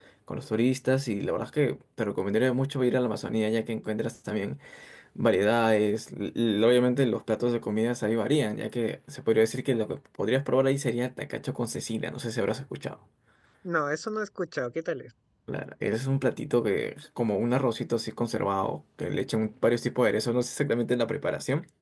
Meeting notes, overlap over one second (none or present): none